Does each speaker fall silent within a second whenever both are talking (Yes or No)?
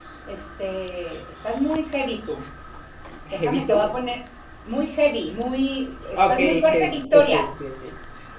No